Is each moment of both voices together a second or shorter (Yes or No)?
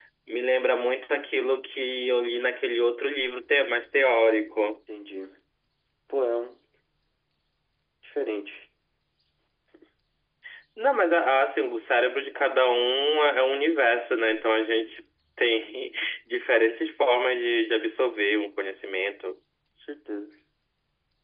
Yes